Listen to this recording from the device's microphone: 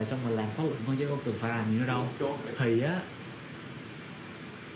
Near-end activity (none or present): present